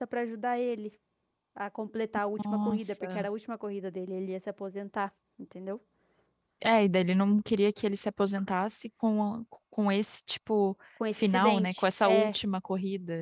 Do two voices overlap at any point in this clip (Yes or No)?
Yes